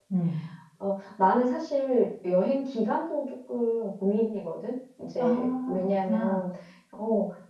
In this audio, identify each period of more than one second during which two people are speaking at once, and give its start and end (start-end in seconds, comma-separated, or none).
5.2-6.4